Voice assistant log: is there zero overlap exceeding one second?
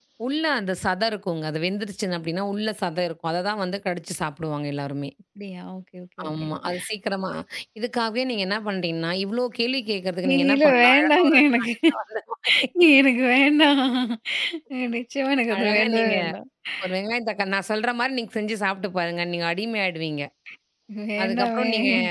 No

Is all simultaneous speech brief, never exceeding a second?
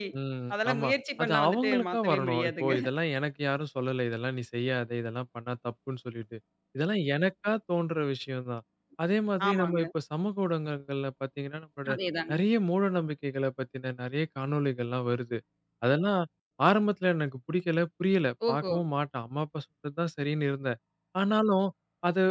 No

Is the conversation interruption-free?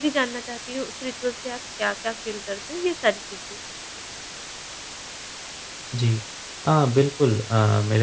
Yes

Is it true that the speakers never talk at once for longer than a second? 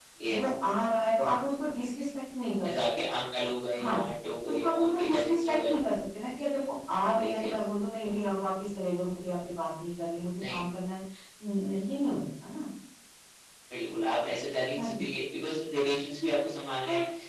No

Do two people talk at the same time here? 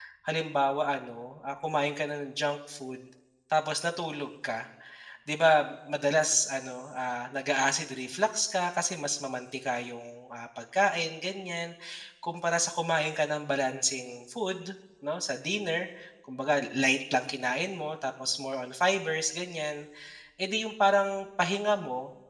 No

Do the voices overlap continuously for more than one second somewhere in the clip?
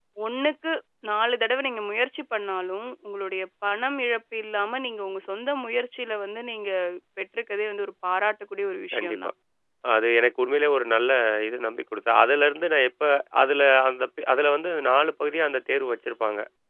No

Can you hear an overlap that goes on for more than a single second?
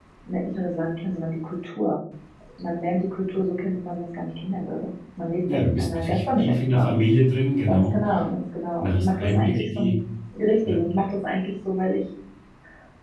Yes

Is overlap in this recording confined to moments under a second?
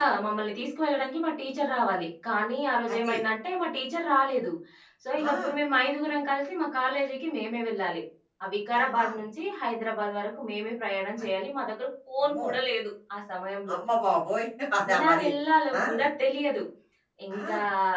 Yes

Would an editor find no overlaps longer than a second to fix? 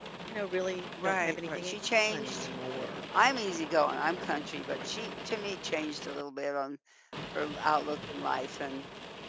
No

